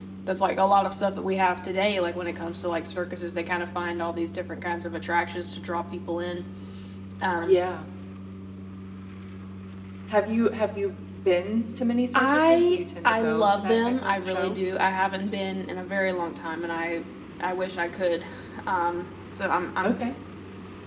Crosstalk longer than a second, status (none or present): present